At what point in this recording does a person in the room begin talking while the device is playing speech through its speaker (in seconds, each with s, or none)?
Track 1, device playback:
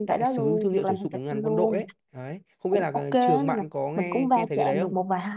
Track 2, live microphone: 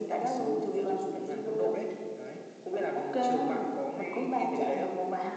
none